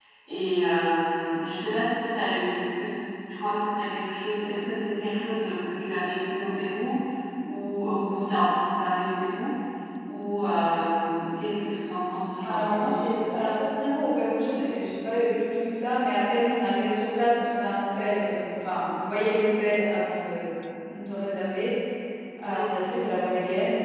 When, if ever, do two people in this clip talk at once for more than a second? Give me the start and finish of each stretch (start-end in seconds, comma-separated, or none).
none